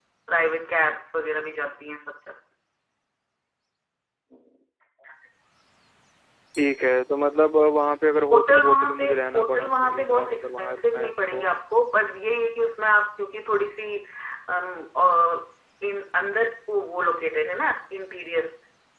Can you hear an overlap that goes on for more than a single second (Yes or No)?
Yes